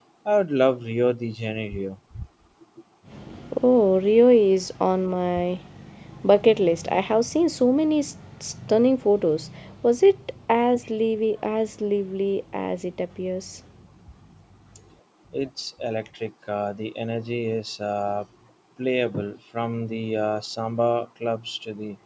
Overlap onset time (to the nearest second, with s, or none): none